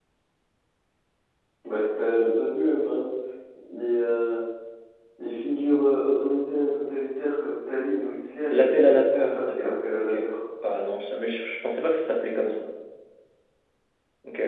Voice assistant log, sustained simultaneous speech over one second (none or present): present